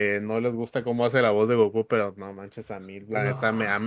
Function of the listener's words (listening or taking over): listening